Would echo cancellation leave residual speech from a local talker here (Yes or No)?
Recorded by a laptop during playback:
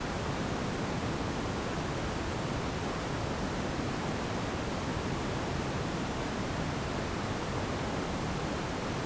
No